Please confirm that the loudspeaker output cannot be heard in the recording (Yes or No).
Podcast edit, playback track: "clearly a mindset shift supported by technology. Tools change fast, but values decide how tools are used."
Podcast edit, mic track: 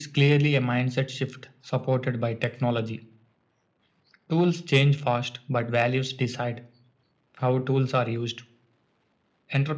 No